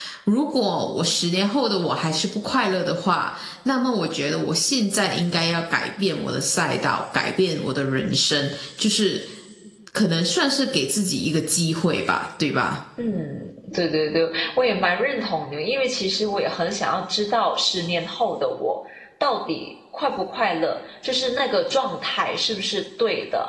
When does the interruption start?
none

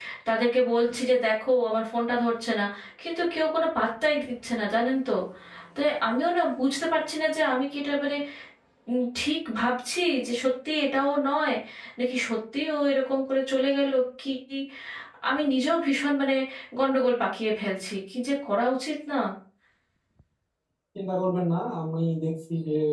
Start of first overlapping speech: none

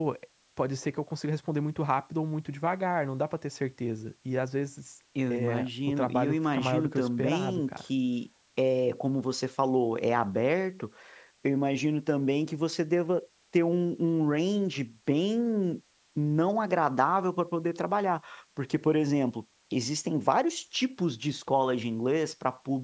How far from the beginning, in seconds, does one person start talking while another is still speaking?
5.2 s

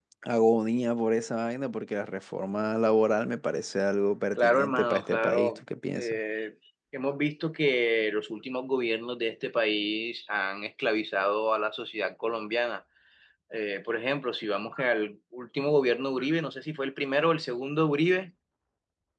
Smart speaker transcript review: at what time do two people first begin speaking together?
4.4 s

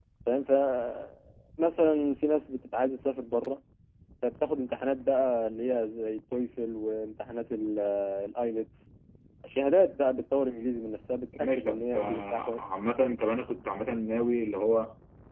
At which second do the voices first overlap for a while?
11.3 s

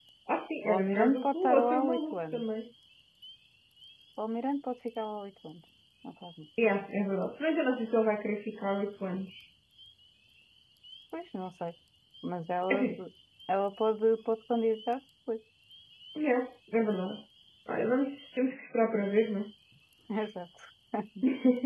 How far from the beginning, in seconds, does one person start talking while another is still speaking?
0.7 s

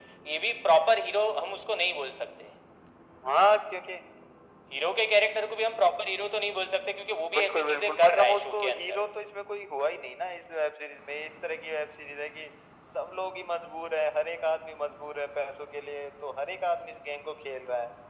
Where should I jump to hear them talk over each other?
7.3 s

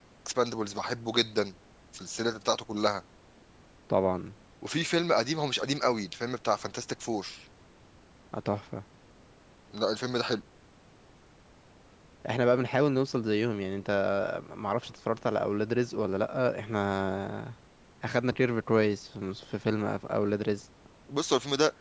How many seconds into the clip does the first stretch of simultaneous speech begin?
none

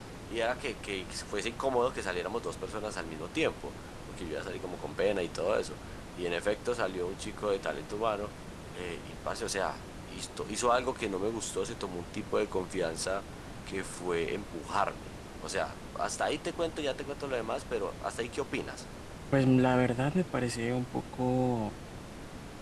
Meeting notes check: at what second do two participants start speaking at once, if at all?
none

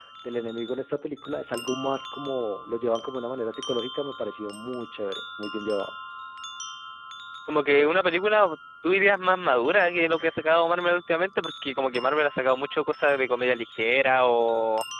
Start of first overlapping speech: none

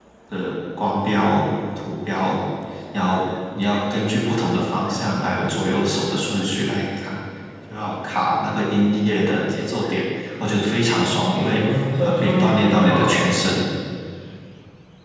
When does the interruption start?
11.6 s

